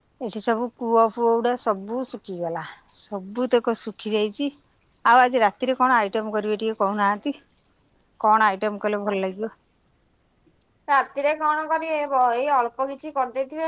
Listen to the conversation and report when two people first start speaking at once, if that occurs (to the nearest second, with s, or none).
none